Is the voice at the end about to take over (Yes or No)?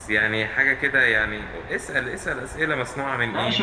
Yes